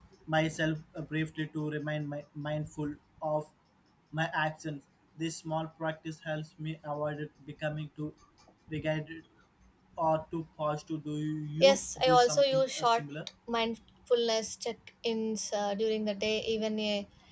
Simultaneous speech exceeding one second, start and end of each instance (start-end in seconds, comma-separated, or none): 11.6-13.0